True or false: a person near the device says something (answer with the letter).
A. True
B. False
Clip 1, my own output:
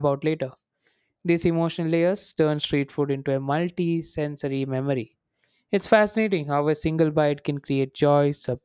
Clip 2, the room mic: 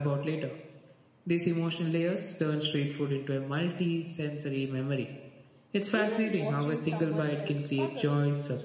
A